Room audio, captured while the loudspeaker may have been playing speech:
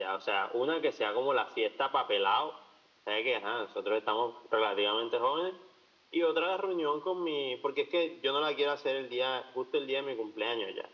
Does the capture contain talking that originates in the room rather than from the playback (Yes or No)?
No